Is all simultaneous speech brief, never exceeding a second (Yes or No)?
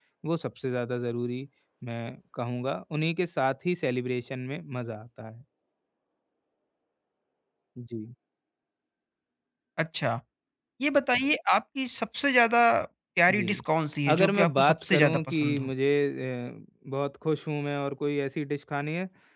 No